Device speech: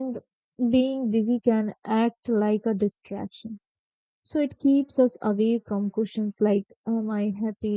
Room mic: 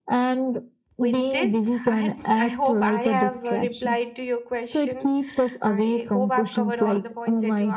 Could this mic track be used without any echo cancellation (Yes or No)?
No